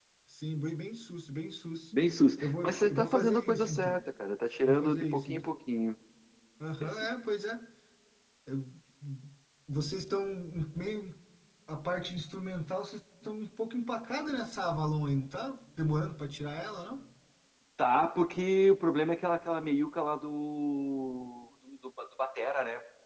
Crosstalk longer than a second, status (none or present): present